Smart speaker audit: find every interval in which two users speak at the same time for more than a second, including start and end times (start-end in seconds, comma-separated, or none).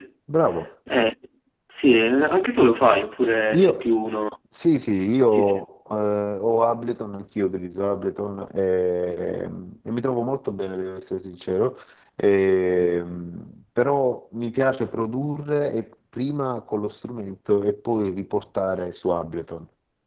none